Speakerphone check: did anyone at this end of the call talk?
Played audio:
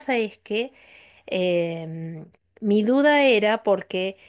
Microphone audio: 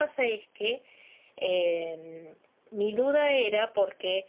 No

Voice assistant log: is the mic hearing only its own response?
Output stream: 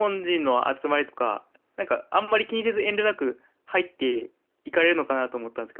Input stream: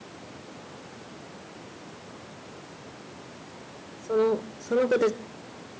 No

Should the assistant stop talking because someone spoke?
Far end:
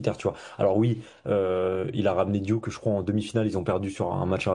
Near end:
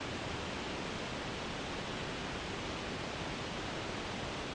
No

